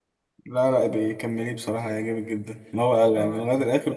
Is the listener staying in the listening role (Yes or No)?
Yes